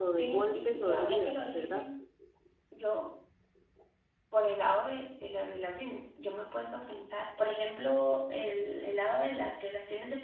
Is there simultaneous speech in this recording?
Yes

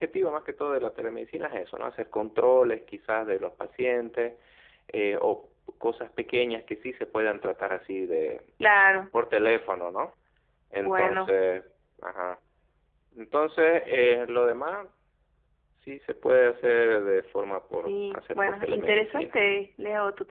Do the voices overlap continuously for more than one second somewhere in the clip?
Yes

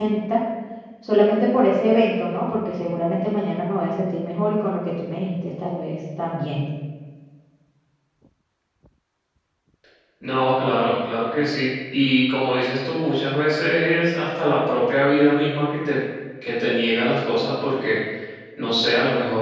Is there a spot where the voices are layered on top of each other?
No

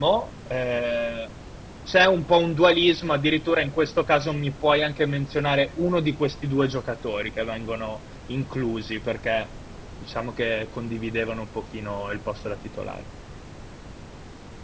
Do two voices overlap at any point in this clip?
No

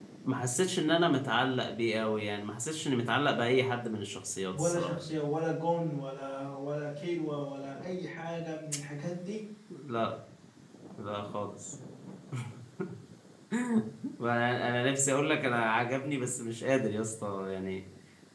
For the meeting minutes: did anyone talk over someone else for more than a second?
No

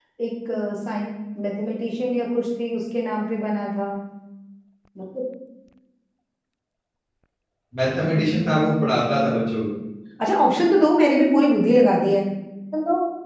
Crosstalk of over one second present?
Yes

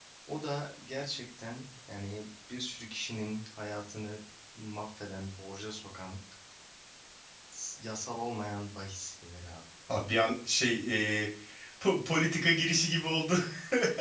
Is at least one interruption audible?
No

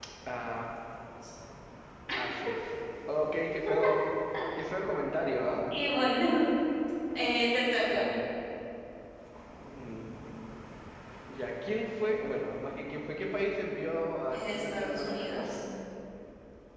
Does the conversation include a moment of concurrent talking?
Yes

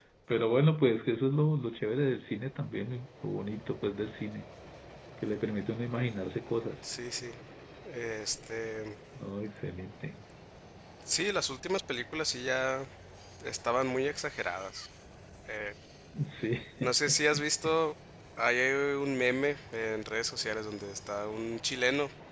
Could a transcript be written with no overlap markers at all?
Yes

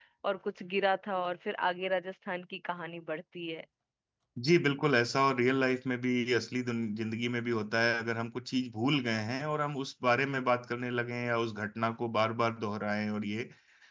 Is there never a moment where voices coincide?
Yes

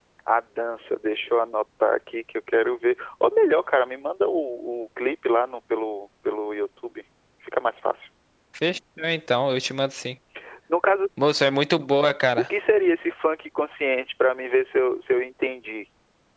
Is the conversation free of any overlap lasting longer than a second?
Yes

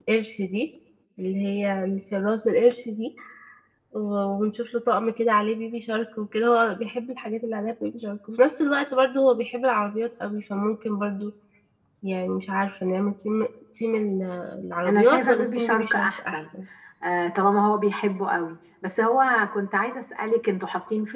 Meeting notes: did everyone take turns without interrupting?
No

